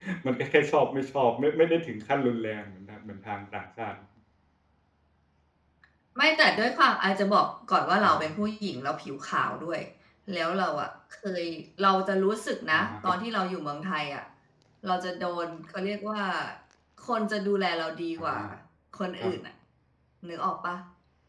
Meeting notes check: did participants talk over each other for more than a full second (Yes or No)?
No